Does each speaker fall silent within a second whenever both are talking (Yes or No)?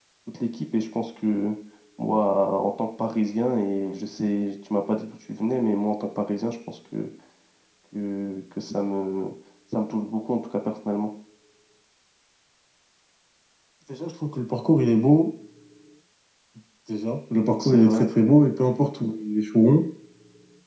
Yes